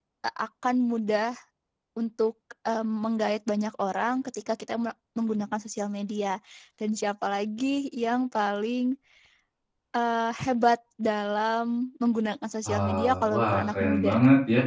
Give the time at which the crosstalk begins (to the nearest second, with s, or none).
13 s